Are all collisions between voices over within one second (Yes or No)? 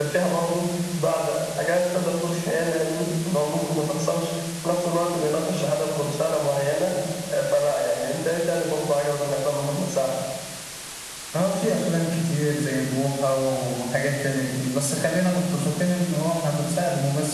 Yes